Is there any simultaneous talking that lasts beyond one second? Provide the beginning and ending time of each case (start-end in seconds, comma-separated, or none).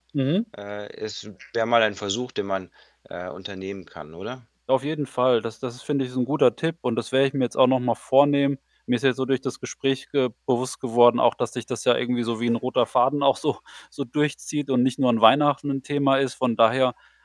none